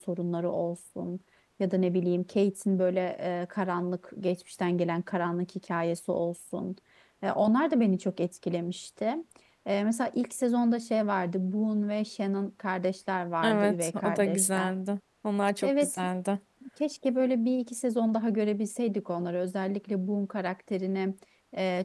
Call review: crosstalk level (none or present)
present